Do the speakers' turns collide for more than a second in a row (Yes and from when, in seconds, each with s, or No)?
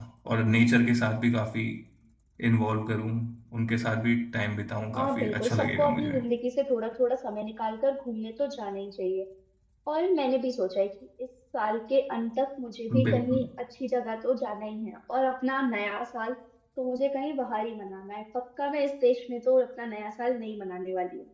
Yes, from 5.0 s